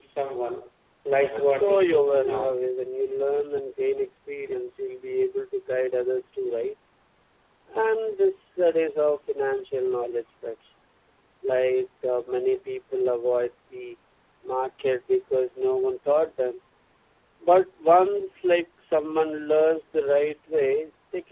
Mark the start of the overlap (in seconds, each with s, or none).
1.3 s